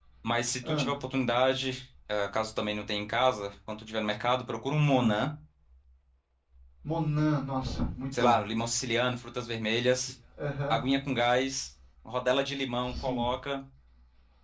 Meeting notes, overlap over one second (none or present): none